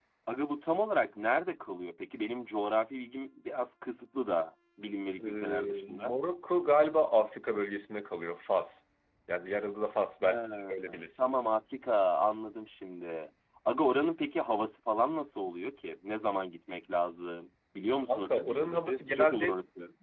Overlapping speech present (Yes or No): Yes